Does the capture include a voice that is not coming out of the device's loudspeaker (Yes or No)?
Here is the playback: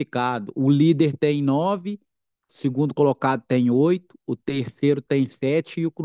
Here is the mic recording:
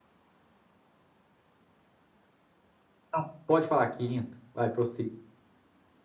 Yes